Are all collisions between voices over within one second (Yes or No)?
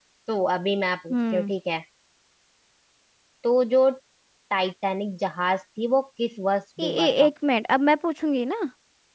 Yes